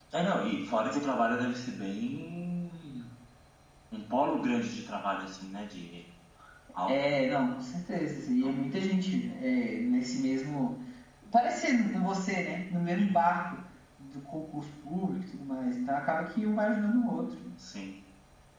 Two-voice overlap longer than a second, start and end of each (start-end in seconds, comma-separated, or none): none